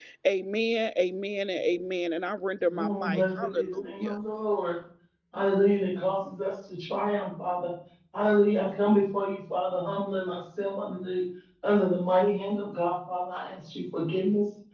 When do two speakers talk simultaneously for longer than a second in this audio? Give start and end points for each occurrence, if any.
2.7-4.2

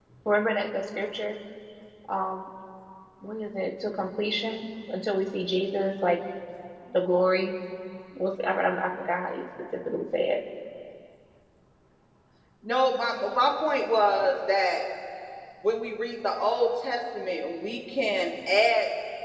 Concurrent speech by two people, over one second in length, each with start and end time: none

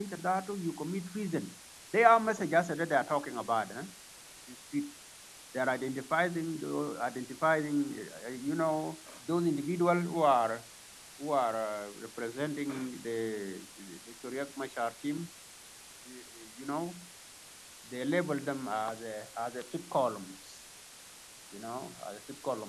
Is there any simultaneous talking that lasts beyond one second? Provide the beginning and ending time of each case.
none

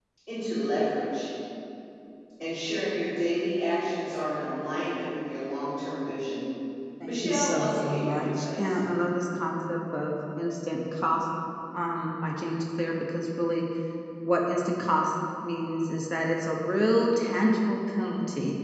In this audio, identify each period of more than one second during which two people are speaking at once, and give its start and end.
7.0-8.8

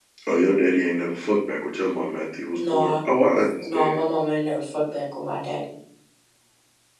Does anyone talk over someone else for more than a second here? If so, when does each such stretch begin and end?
none

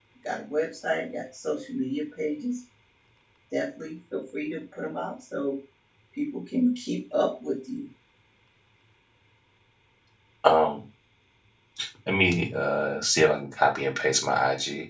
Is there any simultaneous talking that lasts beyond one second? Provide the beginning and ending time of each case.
none

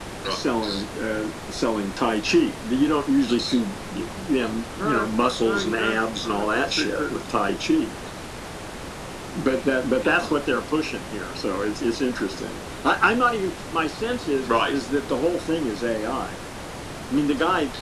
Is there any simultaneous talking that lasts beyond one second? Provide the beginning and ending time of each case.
4.8-7.0

